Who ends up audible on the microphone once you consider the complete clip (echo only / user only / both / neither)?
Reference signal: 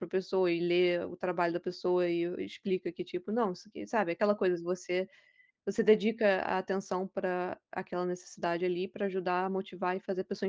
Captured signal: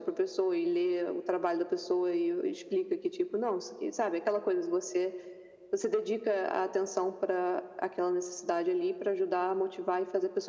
echo only